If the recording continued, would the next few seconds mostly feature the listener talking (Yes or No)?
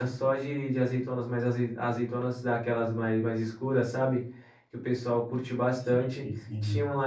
No